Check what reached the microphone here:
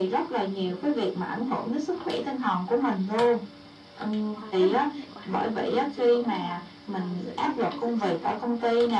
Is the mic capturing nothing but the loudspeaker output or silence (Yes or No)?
No